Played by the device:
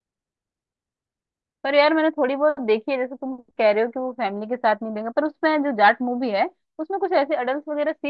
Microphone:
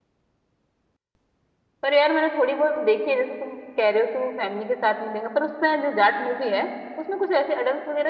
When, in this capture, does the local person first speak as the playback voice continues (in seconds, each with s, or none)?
none